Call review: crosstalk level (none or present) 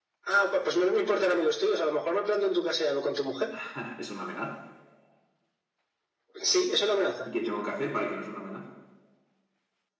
none